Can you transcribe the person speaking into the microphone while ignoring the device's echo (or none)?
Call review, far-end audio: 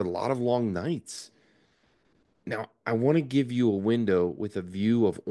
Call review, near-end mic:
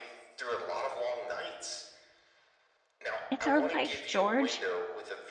It's our life, George.